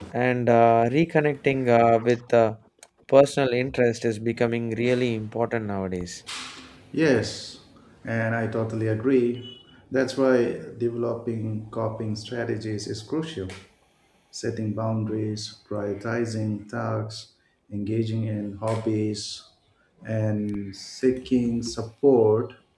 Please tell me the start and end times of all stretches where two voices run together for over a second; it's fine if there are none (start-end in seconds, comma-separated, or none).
none